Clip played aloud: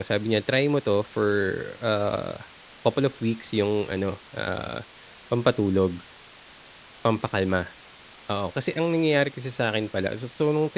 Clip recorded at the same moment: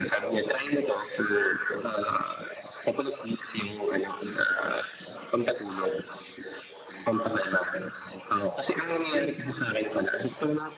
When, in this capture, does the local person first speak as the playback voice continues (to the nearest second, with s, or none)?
none